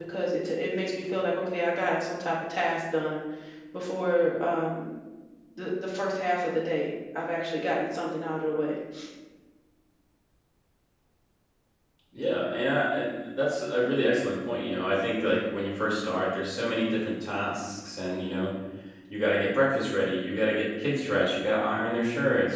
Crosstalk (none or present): none